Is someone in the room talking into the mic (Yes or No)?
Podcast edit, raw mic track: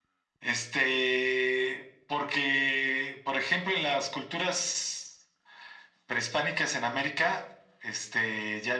No